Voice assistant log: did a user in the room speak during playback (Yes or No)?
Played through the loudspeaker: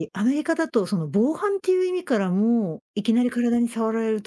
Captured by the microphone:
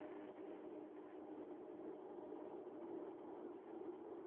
No